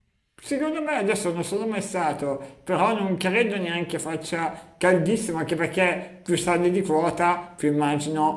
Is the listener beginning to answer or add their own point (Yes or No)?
No